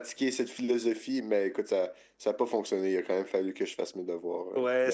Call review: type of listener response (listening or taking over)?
taking over